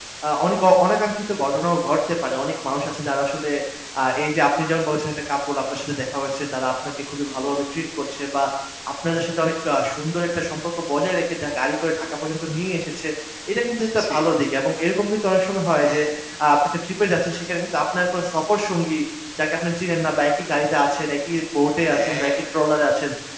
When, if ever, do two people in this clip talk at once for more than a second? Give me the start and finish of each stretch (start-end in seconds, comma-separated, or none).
none